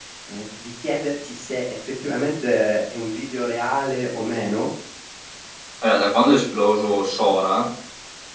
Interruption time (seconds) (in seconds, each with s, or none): none